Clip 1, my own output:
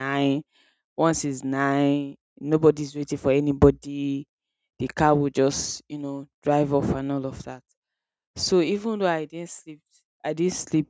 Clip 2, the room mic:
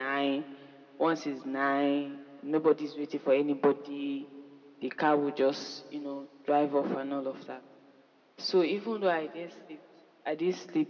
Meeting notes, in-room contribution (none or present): none